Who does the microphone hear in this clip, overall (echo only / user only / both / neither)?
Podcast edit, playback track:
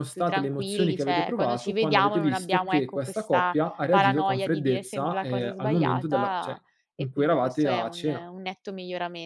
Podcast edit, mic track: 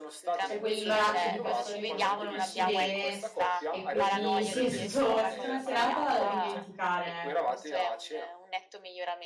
both